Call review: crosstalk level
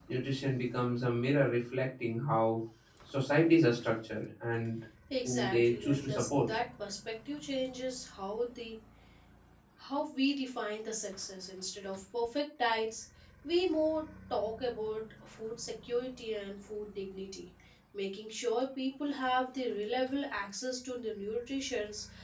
present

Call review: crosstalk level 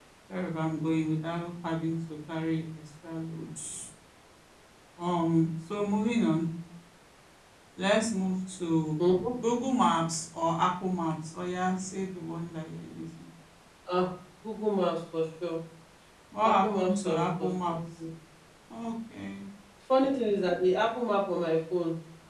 present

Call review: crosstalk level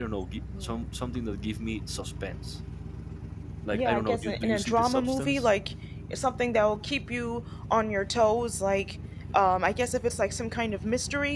present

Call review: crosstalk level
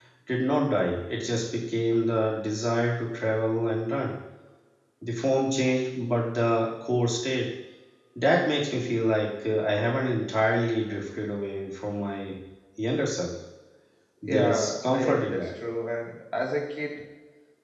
present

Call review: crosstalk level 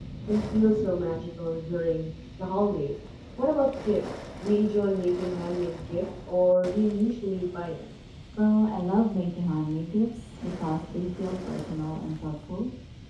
none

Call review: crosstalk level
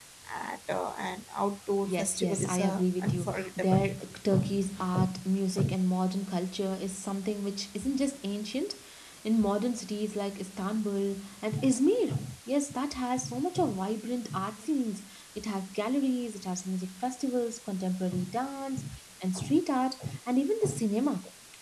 present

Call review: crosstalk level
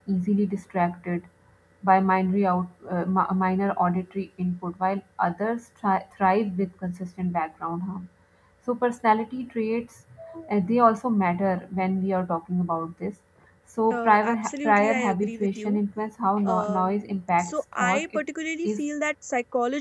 present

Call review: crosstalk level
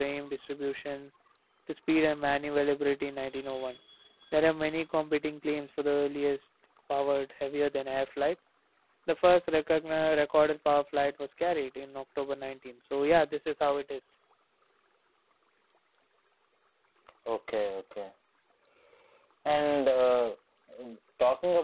none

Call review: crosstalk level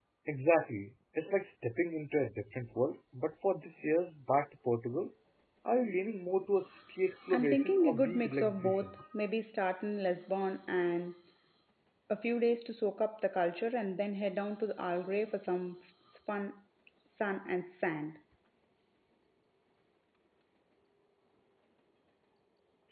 present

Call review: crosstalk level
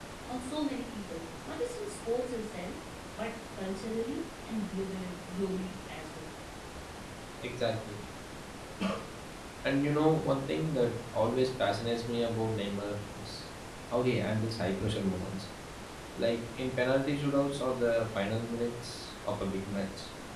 none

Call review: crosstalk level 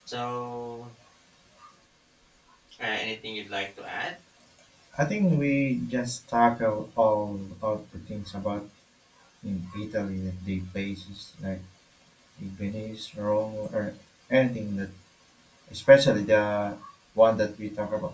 none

